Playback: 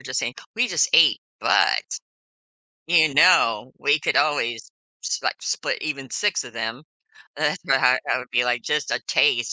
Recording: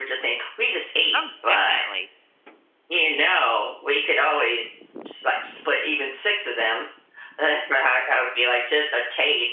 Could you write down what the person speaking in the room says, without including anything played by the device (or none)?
Oh, definitely.